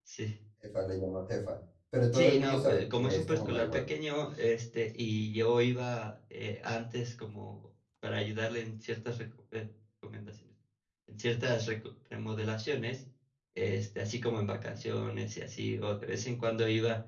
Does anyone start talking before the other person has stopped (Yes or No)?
Yes